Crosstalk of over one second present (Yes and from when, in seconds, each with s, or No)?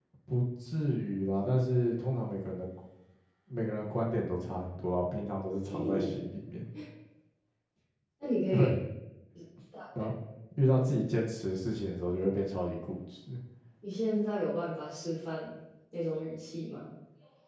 No